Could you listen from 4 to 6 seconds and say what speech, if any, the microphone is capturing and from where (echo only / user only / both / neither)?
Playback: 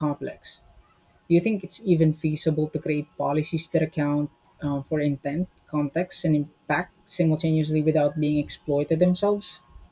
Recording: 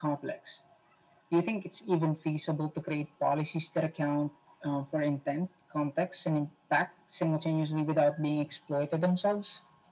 echo only